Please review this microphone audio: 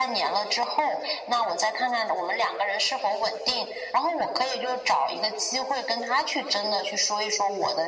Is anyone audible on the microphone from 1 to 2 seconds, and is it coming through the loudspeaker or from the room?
echo only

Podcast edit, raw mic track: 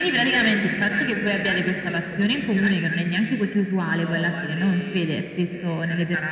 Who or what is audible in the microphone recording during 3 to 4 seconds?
echo only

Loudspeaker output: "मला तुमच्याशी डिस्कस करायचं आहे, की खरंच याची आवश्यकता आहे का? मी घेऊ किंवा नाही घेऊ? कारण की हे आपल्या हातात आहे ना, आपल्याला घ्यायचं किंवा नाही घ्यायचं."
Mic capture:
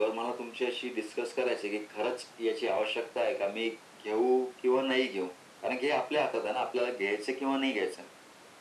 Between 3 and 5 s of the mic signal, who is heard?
echo only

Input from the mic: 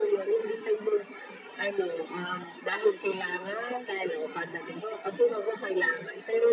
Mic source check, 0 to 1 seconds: echo only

